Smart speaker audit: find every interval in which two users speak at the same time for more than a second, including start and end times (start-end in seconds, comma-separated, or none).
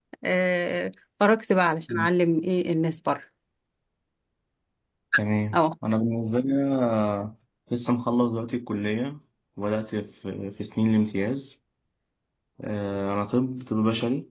none